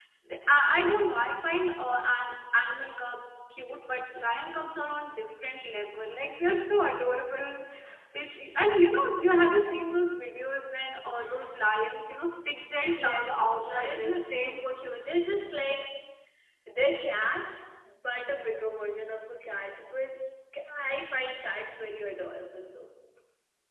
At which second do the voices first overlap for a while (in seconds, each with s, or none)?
12.8 s